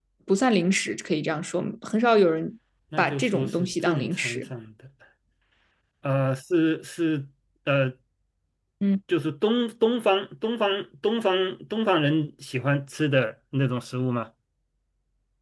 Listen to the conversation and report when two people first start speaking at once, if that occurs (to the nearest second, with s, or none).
3 s